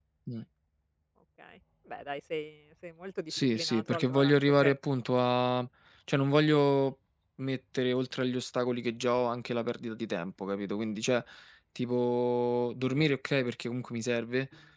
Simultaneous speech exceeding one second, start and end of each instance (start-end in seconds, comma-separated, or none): 3.3-4.7